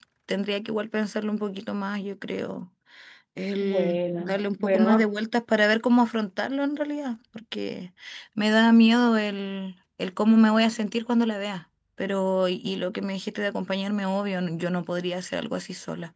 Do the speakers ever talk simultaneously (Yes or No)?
Yes